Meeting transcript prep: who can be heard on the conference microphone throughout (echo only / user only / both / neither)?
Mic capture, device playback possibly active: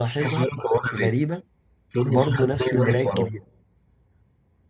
both